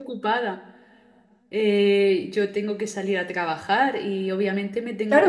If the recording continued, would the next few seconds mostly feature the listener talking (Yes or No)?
Yes